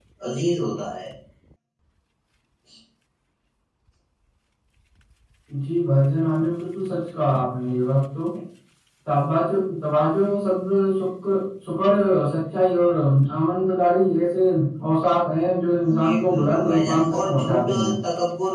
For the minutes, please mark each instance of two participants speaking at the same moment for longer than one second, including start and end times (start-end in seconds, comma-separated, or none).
16.0-17.9